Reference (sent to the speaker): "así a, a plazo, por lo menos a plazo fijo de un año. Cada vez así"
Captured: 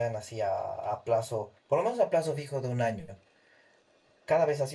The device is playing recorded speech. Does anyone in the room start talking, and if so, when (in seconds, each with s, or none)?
none